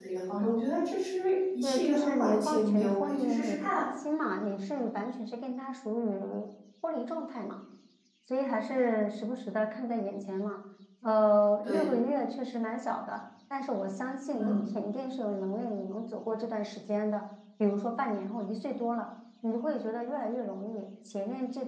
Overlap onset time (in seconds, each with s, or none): 1.6 s